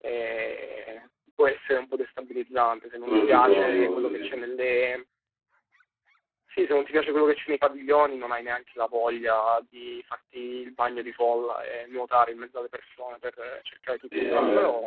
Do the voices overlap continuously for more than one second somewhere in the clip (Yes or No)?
Yes